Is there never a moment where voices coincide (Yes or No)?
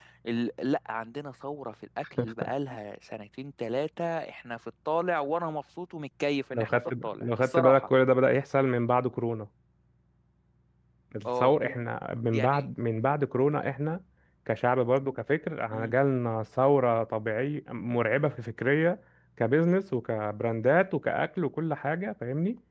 No